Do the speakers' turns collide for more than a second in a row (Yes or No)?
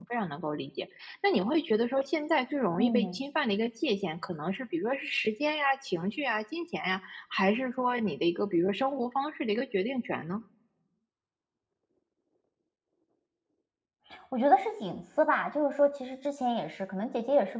No